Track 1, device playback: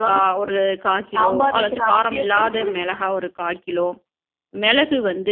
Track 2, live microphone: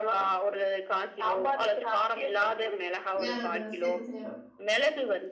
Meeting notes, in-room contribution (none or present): present